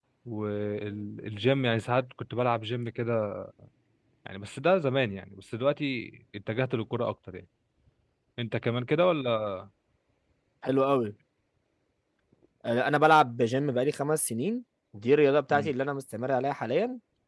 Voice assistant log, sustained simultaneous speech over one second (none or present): none